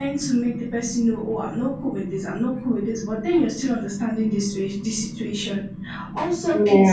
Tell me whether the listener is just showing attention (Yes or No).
Yes